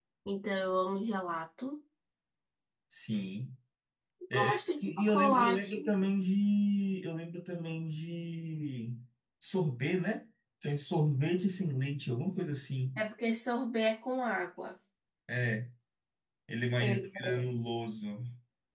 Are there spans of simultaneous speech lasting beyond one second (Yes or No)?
Yes